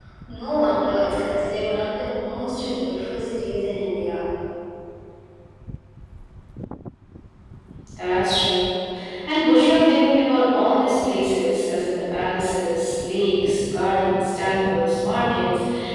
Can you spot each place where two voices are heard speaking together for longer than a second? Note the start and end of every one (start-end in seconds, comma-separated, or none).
none